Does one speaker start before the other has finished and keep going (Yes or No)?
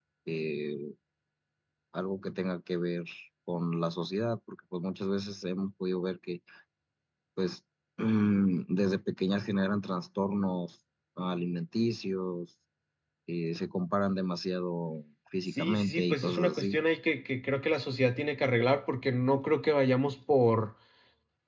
Yes